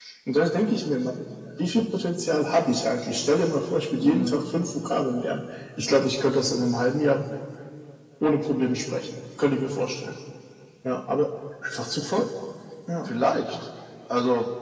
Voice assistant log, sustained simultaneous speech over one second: none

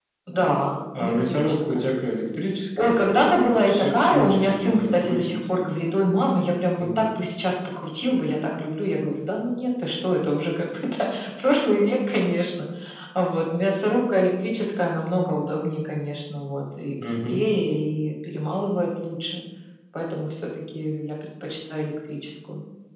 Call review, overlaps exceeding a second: present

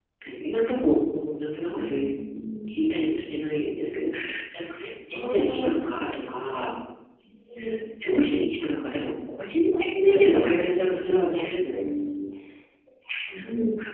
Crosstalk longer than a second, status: present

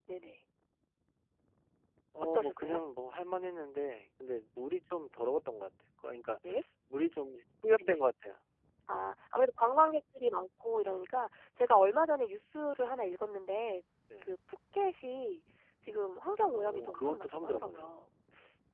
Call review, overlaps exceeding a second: present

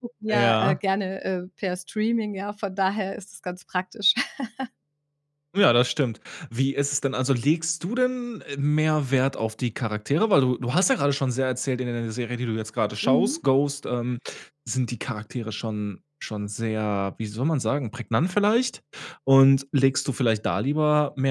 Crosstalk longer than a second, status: none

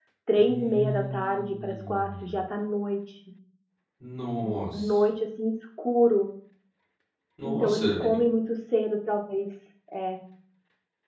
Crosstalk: present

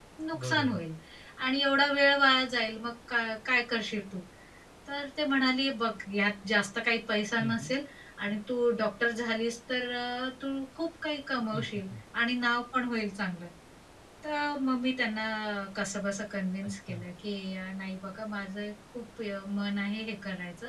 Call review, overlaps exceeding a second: none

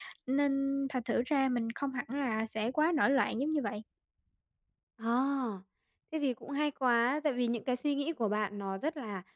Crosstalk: none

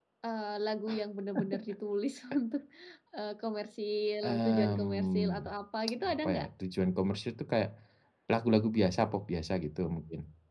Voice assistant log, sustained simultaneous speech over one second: present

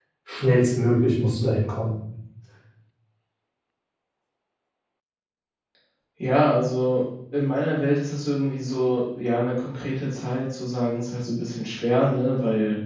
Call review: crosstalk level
none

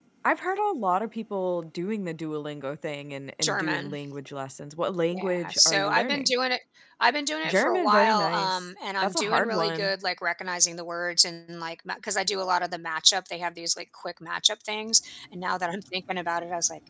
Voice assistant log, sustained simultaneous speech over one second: present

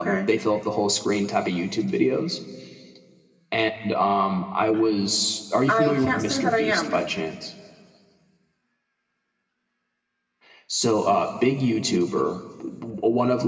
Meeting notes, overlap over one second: present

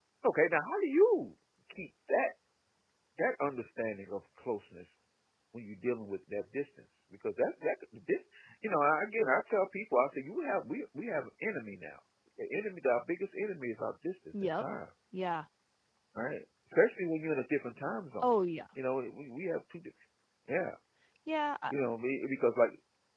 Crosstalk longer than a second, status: none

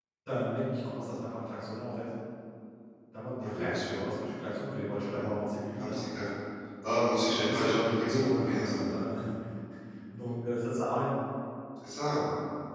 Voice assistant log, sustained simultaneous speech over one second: present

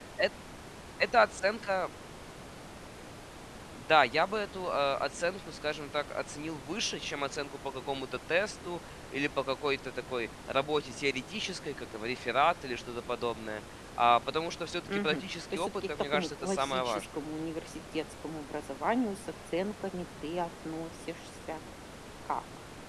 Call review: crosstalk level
present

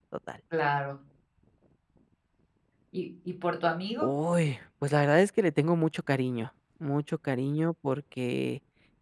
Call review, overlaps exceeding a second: none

